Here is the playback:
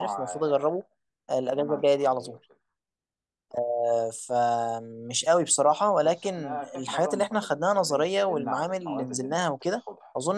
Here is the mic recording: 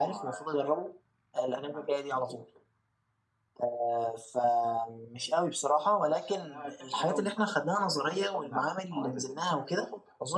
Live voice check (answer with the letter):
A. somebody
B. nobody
B